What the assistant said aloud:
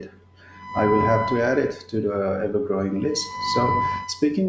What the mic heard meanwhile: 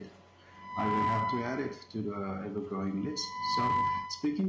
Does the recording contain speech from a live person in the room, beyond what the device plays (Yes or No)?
No